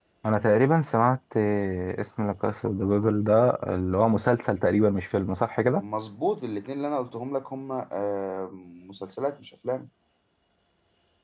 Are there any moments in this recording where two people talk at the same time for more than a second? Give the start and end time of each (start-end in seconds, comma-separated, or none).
none